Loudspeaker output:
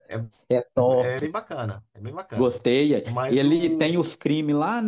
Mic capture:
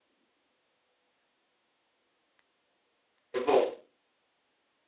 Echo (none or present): none